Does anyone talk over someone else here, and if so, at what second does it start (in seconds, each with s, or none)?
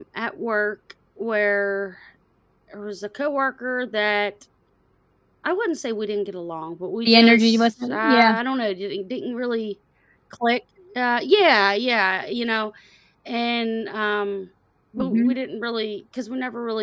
7.0 s